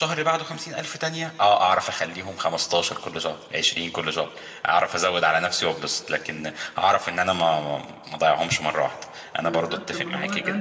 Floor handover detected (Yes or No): Yes